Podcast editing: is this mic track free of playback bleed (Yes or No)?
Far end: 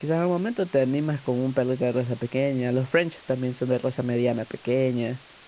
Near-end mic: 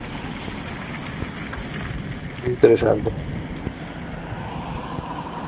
Yes